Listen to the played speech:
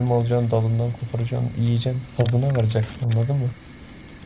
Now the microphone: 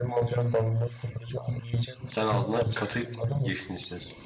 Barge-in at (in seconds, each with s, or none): 2.0 s